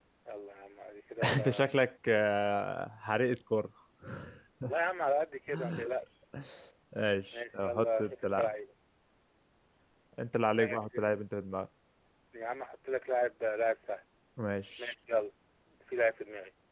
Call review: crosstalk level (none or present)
present